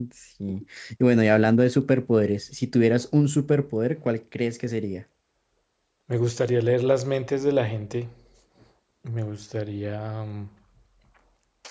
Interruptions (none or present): none